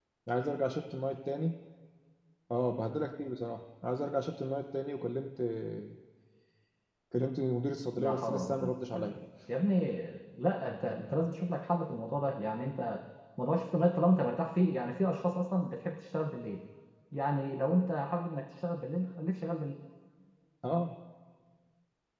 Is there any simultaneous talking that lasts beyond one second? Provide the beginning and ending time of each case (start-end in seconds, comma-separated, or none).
7.9-9.2